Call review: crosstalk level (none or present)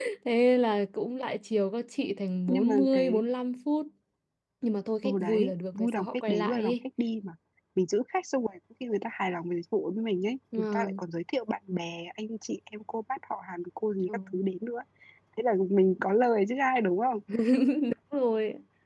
present